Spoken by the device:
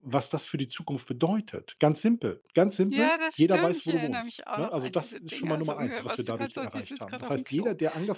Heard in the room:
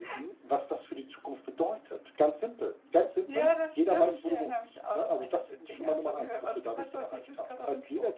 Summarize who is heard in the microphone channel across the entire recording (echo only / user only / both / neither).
echo only